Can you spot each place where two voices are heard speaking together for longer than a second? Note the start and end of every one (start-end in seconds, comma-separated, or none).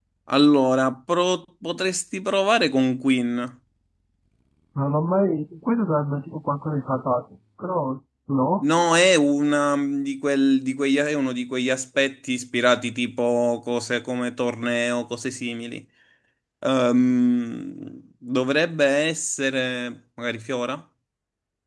none